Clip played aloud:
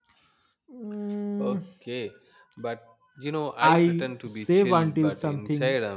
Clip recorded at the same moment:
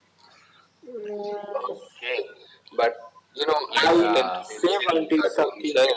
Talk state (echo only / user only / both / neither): both